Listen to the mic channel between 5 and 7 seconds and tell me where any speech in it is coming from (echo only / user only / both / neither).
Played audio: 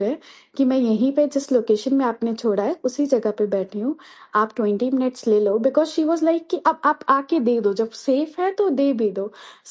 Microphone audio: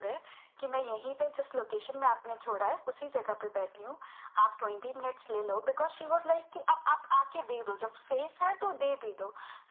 echo only